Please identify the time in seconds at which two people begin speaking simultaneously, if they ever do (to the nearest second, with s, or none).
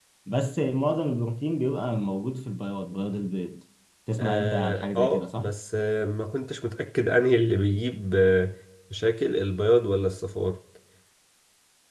4 s